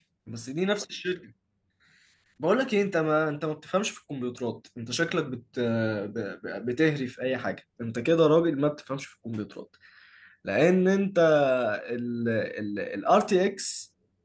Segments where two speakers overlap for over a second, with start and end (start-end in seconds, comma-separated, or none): none